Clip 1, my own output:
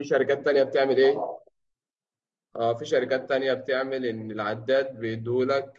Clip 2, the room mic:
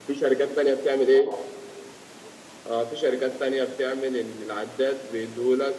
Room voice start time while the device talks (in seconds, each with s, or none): none